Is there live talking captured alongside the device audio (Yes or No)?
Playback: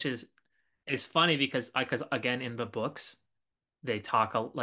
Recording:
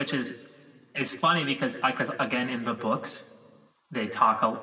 No